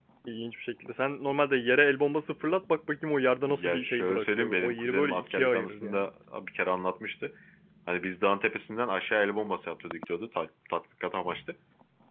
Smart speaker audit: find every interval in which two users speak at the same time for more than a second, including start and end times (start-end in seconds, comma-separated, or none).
3.5-6.1